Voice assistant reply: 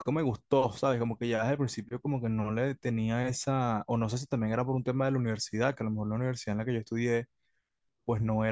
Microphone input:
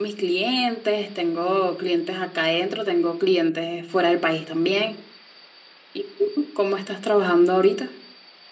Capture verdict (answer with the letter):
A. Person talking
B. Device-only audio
A